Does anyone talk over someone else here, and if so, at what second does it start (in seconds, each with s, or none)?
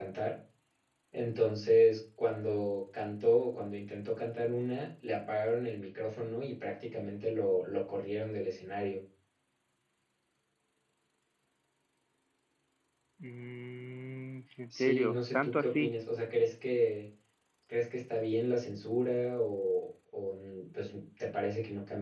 14.7 s